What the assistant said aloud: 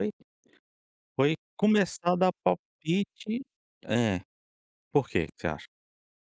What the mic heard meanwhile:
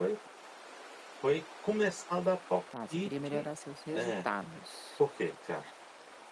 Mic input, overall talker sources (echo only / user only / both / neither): both